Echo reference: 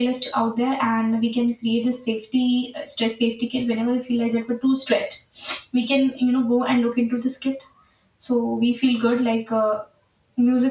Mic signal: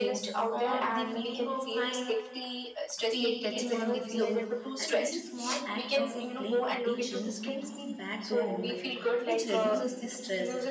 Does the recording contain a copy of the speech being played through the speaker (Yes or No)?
Yes